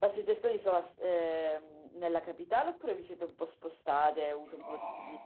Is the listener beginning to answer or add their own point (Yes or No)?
Yes